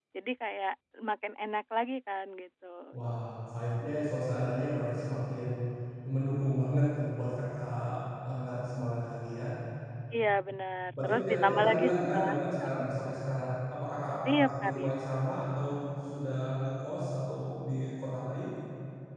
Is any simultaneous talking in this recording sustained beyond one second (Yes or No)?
Yes